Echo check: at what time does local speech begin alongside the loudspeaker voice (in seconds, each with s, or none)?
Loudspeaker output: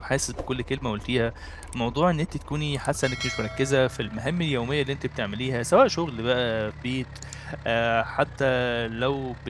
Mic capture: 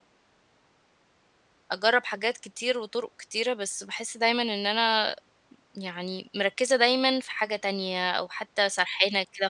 1.7 s